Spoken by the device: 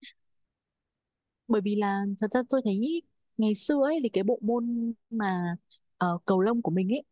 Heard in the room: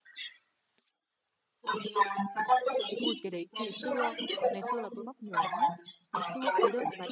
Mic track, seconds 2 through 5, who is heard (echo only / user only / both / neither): both